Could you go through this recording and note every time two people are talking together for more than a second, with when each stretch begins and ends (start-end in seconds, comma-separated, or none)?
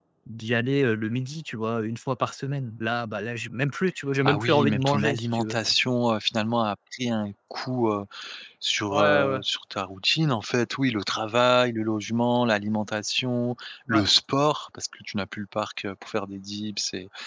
4.3-5.6